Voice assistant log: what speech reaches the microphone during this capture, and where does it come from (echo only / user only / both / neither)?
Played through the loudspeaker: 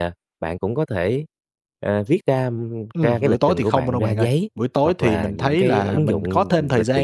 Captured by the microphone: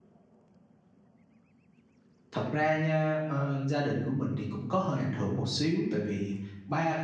user only